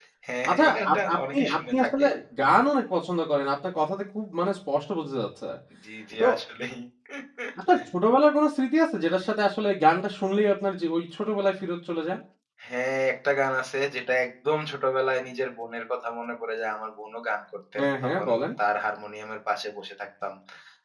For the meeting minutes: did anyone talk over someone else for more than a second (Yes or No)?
Yes